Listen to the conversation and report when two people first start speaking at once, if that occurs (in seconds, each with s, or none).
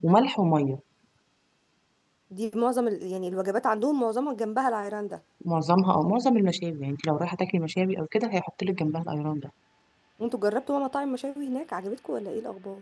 none